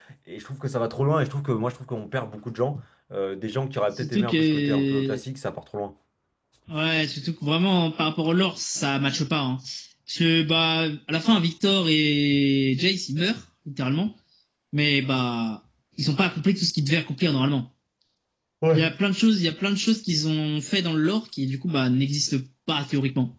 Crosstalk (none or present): present